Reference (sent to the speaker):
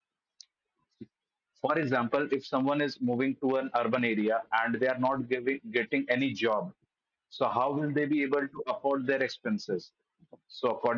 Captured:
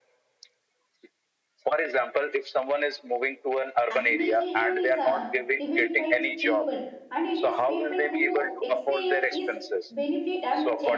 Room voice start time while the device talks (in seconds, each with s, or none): 3.9 s